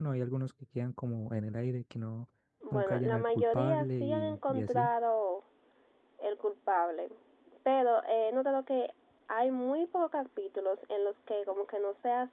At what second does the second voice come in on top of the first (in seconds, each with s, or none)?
2.7 s